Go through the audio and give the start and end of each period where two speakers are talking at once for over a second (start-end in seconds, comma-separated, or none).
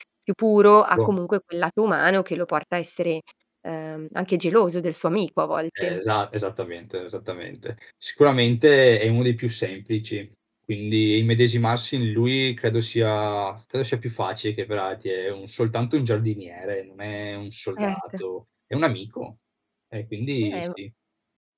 none